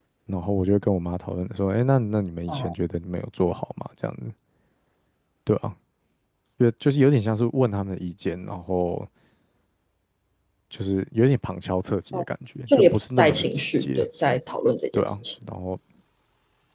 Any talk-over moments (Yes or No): Yes